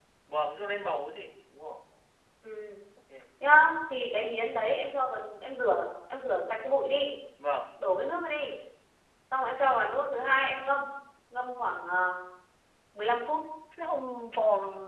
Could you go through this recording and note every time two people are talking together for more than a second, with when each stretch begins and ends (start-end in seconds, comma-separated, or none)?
none